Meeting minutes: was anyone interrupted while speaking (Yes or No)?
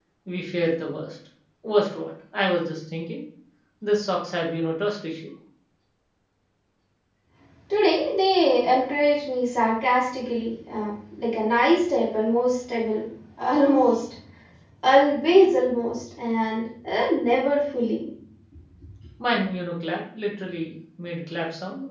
No